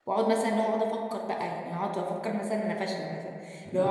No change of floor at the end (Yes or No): No